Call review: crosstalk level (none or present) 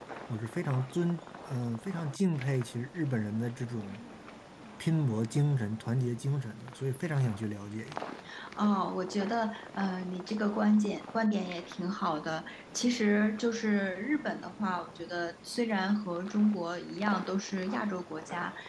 none